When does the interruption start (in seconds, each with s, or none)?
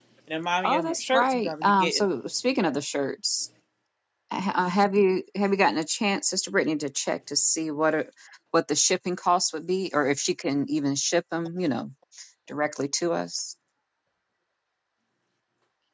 0.6 s